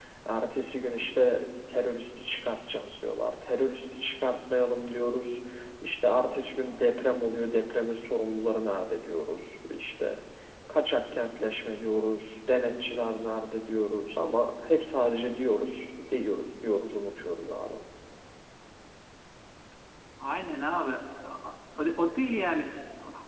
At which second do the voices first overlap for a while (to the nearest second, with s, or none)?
none